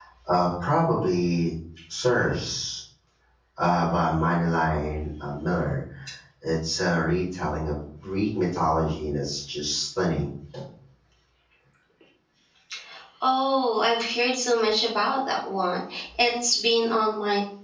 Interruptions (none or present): none